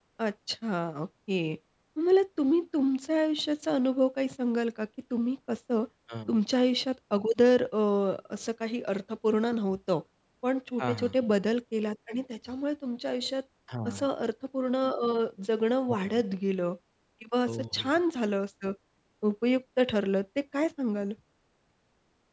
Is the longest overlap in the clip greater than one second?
No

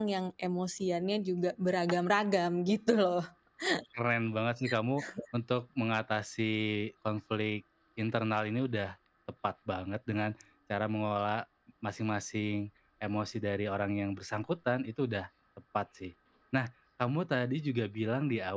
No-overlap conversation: Yes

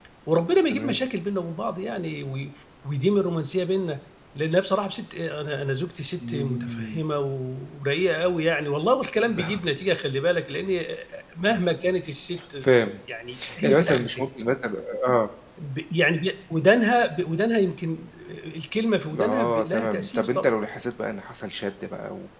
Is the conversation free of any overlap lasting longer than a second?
No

